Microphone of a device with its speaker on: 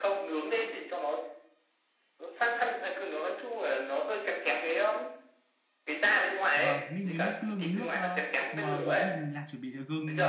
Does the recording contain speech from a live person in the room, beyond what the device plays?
Yes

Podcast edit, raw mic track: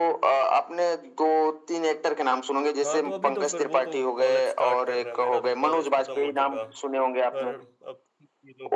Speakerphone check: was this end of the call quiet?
No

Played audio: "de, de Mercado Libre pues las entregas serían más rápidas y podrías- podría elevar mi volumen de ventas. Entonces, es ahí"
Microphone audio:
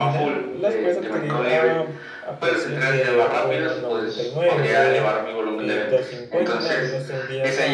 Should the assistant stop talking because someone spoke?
Yes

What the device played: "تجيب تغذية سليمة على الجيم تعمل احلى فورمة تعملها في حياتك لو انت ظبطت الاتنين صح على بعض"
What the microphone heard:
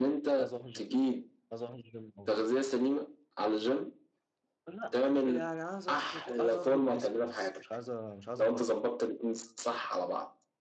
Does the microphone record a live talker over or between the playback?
Yes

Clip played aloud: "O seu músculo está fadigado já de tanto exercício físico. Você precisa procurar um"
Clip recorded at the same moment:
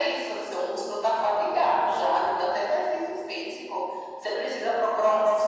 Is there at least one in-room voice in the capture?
No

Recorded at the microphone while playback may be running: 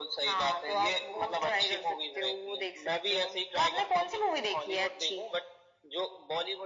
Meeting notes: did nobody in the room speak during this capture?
Yes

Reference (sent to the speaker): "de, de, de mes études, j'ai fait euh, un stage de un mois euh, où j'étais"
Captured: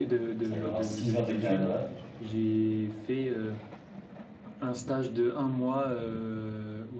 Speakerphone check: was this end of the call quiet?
No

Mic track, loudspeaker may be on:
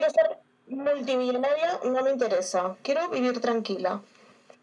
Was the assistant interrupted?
No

